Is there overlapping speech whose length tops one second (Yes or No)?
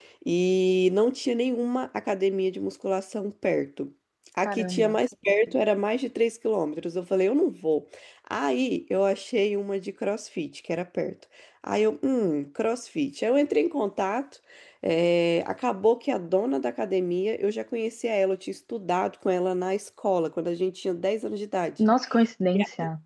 No